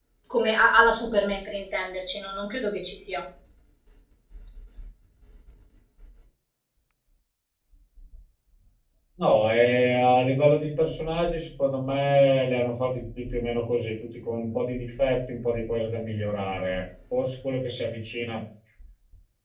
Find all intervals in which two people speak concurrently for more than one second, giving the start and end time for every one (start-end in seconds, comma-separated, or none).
none